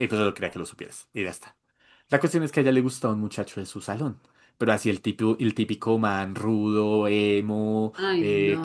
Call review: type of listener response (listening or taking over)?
listening